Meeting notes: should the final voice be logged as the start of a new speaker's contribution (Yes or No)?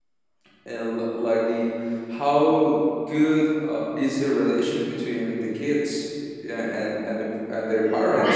Yes